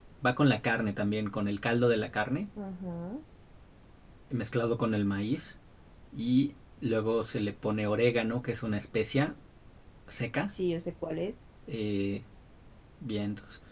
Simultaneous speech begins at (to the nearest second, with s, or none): none